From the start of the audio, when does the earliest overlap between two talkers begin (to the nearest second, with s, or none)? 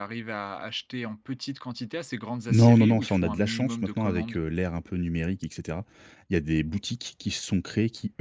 2 s